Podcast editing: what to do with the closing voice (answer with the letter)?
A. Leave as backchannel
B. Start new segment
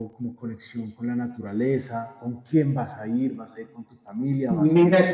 B